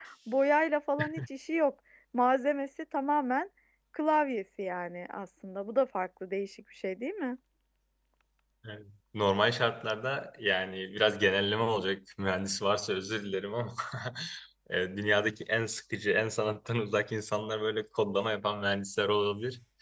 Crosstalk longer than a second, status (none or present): none